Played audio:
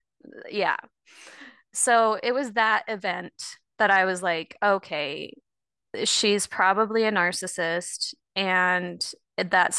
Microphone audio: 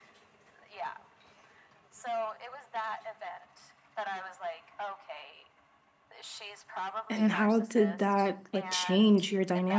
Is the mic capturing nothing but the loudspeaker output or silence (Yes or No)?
No